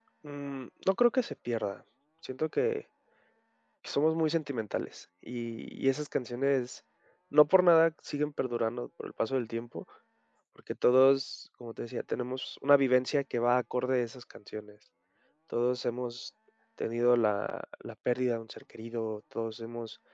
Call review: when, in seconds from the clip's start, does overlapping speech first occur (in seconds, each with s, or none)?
none